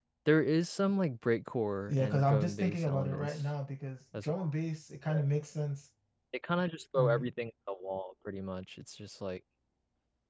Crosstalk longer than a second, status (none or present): present